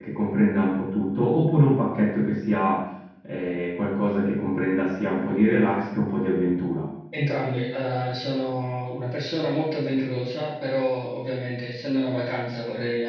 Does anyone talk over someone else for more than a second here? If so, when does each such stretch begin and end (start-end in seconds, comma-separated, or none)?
none